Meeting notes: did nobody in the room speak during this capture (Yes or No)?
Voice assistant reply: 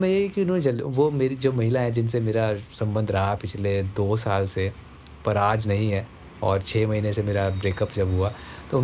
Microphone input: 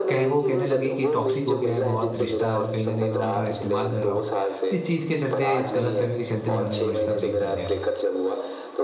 No